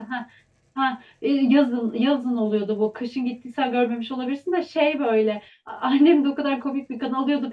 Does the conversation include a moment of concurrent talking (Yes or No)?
No